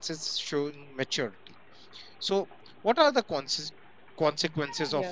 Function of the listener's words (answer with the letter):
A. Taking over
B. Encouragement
B